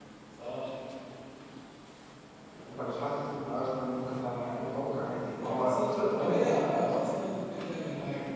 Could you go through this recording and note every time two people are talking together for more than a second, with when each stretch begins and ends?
5.4-6.9

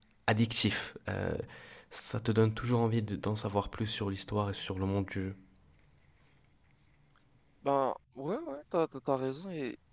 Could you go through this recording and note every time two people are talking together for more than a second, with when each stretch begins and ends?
none

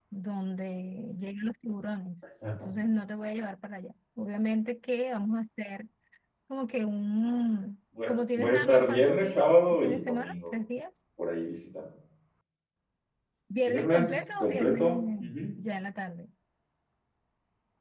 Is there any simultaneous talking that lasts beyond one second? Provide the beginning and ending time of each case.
8.1-10.3, 13.7-15.3

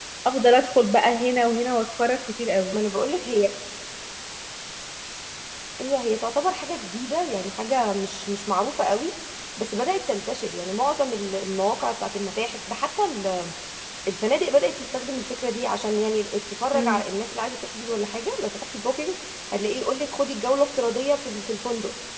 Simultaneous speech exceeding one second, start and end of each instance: none

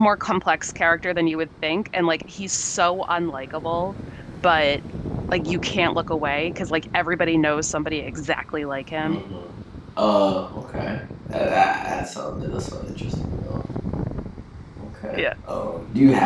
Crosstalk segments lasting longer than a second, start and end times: none

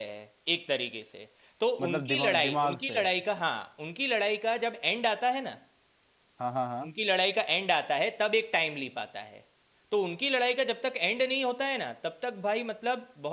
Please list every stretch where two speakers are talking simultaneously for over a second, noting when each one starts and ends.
1.8-3.0

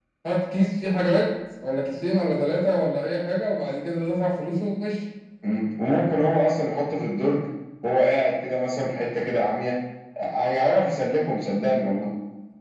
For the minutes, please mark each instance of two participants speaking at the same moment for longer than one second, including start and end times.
none

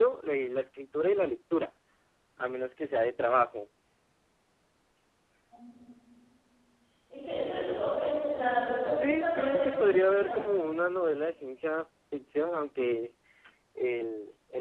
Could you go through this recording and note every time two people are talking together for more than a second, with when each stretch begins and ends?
8.9-10.5

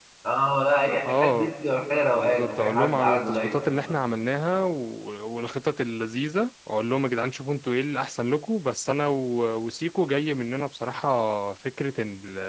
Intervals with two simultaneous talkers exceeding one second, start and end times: 2.1-3.6

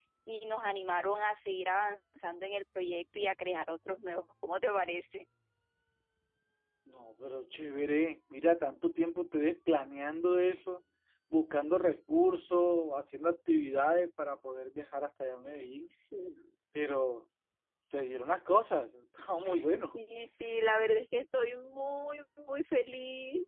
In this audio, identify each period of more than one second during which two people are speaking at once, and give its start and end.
none

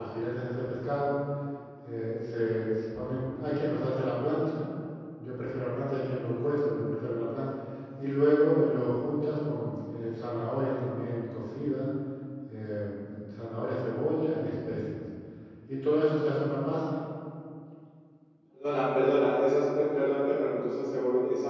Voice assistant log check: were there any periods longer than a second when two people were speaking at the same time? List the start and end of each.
none

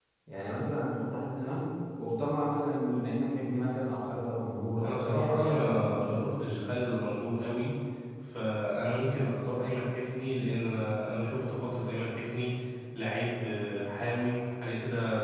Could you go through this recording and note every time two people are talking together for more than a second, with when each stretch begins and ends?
4.8-6.6

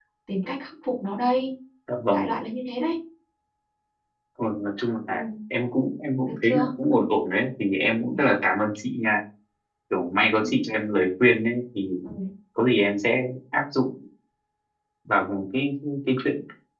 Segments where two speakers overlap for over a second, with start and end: none

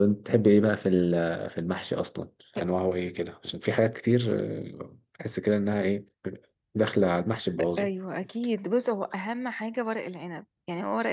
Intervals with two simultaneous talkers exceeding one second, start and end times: none

